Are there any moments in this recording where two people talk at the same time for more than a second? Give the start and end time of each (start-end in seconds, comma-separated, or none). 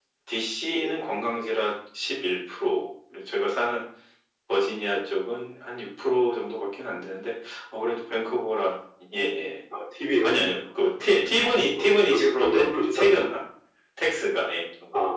11.8-13.3